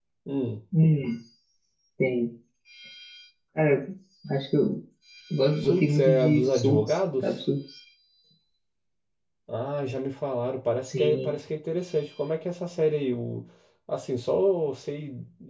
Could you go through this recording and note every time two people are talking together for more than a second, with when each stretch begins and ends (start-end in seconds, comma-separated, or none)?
5.6-7.4